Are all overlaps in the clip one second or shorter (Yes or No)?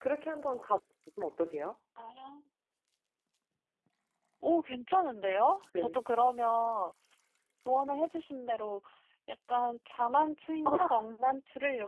Yes